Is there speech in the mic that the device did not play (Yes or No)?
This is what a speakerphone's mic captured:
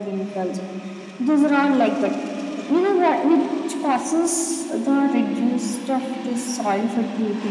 No